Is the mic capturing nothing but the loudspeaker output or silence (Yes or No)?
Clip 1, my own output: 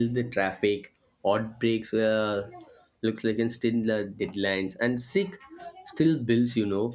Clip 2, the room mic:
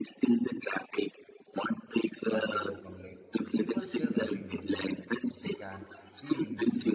No